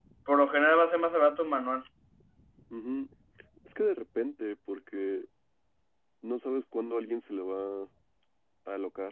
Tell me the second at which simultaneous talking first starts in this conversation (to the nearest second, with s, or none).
none